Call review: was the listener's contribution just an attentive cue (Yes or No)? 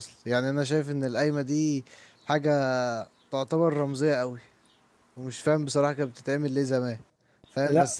Yes